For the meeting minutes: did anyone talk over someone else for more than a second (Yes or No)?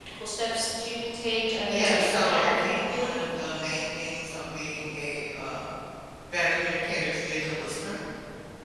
Yes